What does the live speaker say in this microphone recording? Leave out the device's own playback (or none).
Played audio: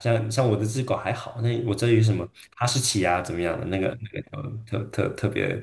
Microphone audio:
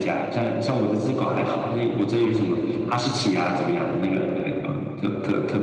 none